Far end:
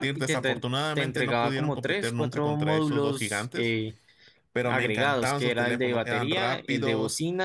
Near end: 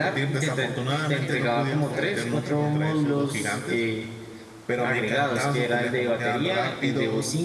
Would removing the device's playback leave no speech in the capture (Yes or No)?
No